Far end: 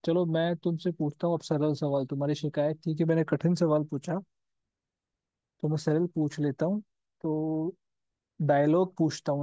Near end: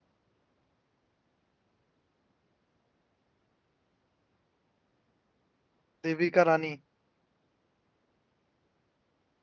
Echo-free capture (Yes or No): Yes